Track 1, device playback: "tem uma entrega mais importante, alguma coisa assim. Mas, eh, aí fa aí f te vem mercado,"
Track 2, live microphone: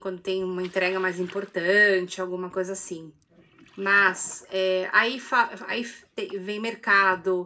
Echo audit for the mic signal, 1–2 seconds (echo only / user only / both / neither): echo only